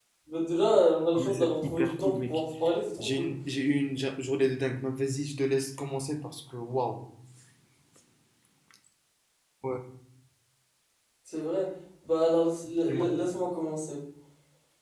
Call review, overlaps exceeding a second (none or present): present